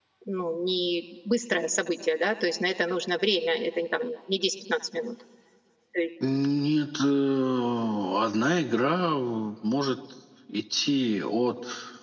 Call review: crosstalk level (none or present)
none